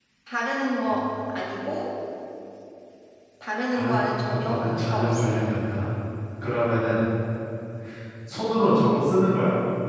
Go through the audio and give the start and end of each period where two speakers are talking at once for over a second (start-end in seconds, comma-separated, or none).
3.7-5.3